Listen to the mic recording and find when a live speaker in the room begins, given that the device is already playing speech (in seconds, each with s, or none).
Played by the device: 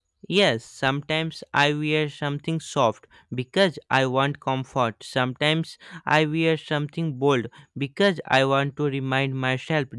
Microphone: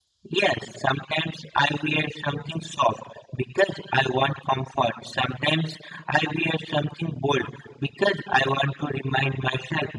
none